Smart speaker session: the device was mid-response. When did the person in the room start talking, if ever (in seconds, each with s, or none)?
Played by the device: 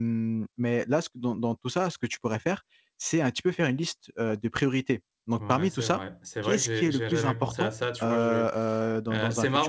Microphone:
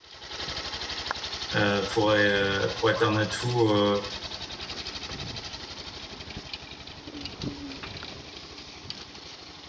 1.5 s